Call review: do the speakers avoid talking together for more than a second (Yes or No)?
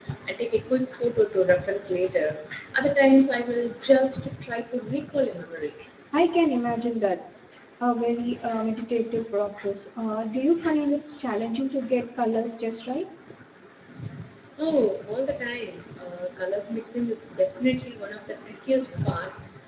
Yes